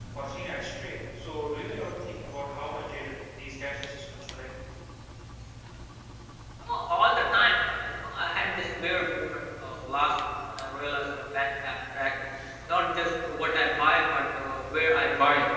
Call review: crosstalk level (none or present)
none